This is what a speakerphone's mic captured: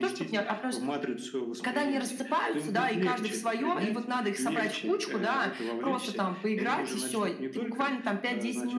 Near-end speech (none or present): none